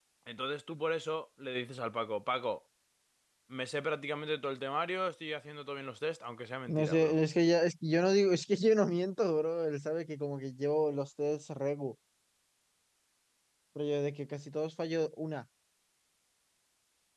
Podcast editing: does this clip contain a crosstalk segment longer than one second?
No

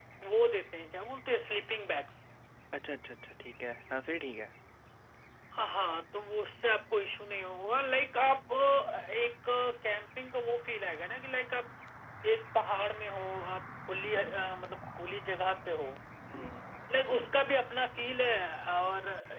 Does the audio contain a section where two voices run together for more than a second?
No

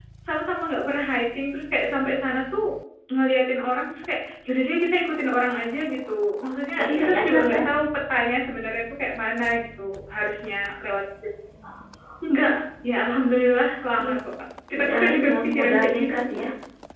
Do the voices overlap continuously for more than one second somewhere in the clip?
Yes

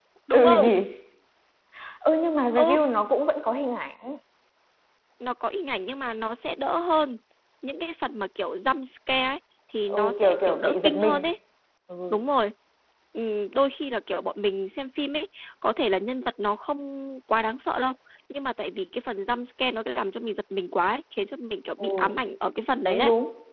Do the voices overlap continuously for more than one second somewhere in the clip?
Yes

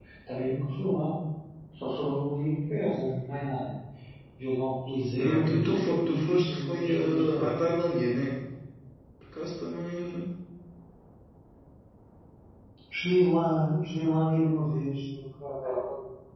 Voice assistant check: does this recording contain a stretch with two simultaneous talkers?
Yes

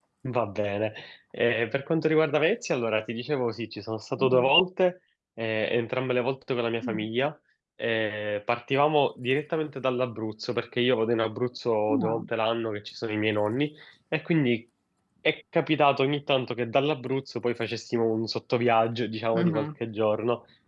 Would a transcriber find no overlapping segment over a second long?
Yes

